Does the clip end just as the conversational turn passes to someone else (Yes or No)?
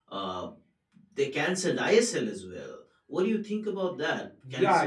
Yes